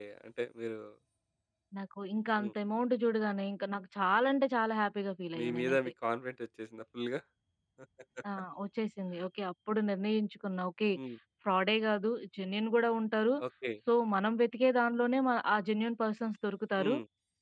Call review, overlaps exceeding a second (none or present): none